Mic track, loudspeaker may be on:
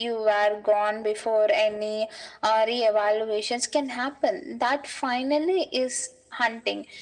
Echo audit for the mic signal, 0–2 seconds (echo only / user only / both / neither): echo only